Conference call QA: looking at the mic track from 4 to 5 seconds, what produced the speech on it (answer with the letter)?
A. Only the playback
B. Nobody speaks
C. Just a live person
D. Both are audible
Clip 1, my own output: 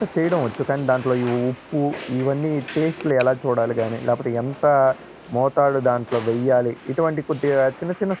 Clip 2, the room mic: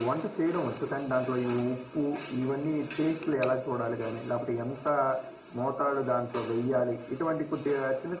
A